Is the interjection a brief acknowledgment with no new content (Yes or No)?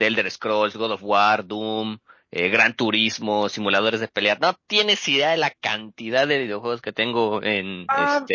No